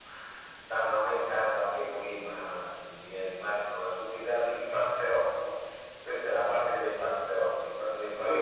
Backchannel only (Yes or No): Yes